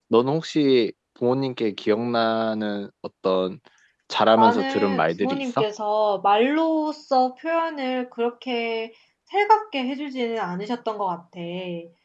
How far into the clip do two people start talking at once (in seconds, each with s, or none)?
4.4 s